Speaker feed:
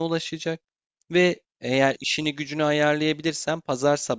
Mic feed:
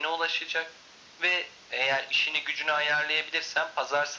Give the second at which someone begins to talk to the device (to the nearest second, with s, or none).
none